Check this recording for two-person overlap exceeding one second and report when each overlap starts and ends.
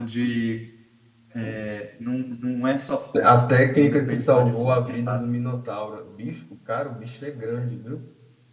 3.2-5.3

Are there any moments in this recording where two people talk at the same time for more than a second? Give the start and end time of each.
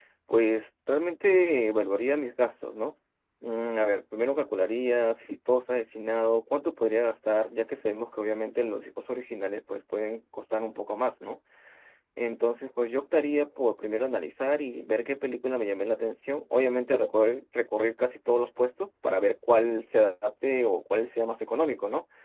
none

